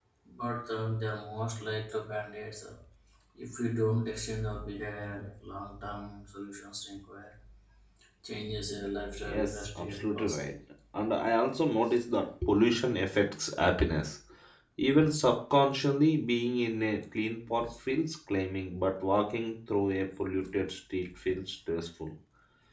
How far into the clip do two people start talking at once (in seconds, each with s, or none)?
9.2 s